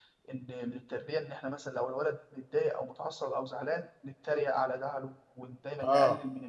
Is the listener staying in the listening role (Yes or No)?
Yes